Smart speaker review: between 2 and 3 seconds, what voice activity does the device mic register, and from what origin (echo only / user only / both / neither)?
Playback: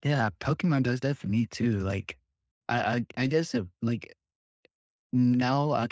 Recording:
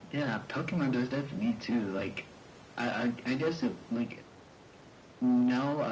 echo only